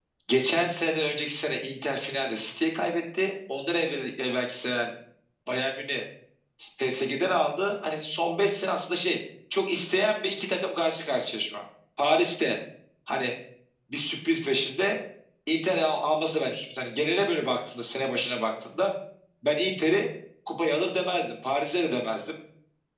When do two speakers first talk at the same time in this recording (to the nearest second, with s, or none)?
none